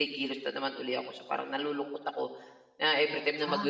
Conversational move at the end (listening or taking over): listening